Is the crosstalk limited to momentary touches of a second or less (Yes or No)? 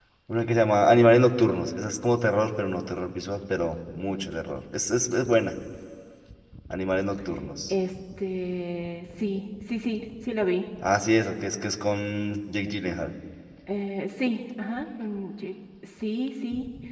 Yes